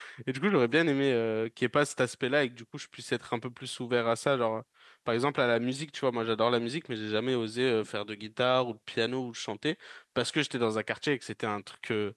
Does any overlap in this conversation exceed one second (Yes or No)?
No